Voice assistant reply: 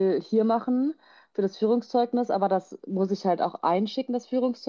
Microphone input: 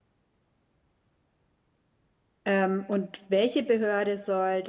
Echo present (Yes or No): No